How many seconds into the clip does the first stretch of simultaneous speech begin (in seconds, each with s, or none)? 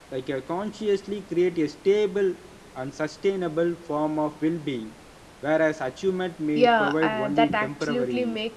6.6 s